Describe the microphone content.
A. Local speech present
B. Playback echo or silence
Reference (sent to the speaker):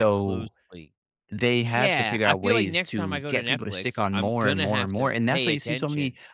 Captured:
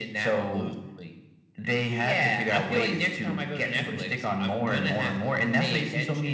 B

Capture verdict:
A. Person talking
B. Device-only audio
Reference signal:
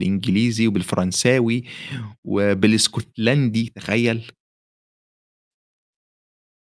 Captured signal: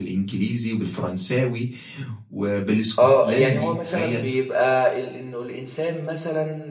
A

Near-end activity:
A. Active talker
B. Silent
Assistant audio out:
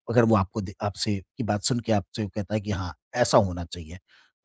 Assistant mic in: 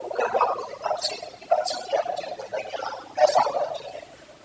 B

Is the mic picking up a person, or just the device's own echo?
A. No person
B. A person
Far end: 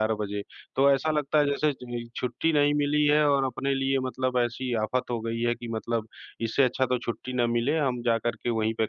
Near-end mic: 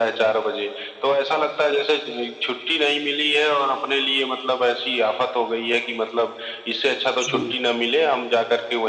B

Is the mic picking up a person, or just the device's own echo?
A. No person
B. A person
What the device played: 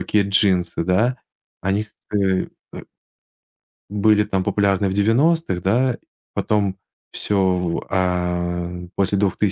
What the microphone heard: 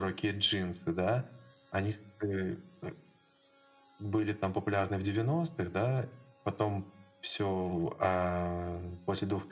A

